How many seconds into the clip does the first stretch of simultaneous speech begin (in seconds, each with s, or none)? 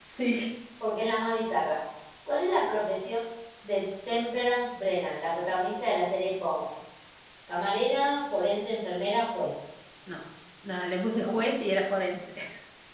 none